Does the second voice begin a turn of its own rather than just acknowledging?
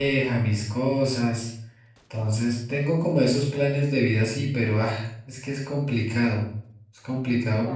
Yes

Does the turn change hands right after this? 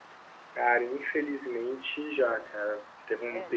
No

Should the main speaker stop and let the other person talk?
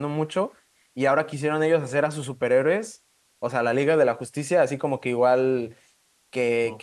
No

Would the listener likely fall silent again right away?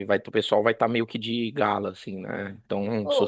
No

